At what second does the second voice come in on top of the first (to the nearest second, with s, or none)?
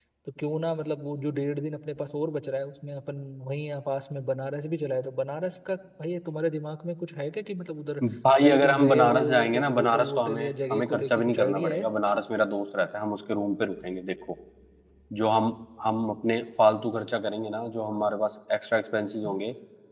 8 s